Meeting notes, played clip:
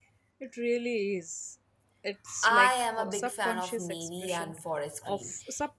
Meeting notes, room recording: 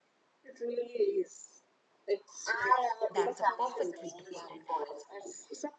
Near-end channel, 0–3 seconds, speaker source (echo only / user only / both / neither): echo only